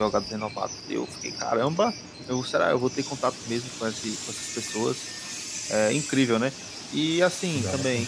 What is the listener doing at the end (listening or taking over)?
listening